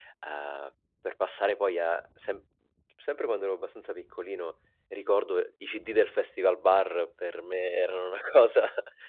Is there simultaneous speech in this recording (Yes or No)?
No